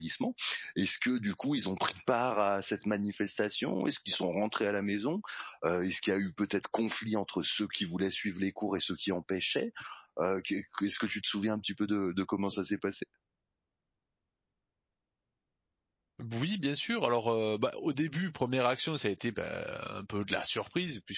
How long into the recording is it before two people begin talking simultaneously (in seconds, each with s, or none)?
none